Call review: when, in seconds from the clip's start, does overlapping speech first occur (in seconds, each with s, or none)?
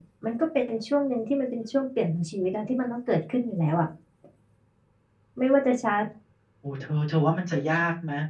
none